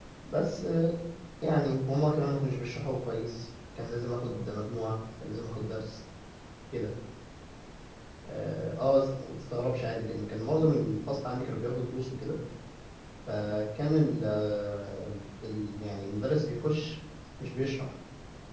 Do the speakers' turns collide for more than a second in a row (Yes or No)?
No